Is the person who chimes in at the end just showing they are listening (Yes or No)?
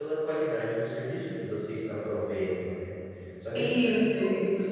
Yes